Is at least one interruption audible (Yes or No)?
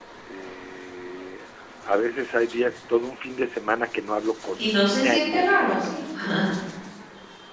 Yes